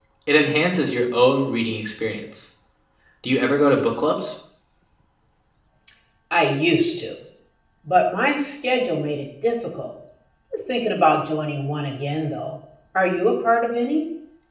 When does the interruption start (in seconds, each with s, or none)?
none